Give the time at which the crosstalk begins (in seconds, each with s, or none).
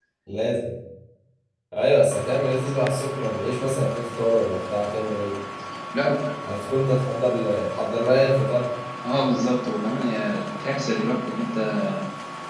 none